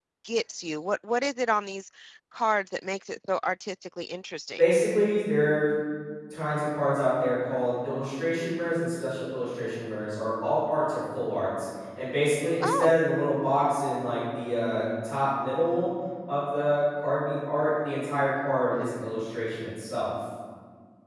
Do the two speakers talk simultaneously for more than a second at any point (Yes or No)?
No